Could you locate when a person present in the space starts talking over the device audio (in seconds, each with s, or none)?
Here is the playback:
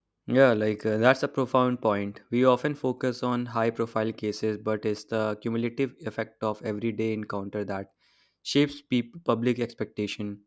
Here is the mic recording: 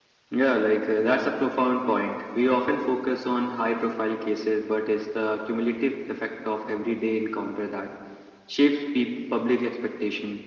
none